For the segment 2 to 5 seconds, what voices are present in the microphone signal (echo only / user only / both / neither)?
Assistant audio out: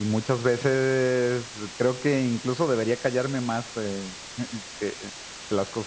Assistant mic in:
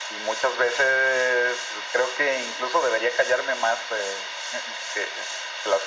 echo only